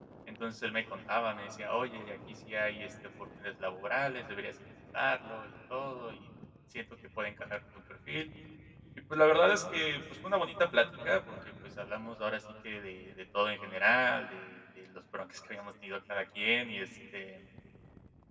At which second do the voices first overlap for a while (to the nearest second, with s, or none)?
none